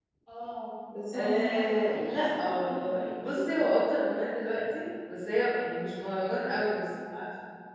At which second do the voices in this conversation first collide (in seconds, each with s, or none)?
1.1 s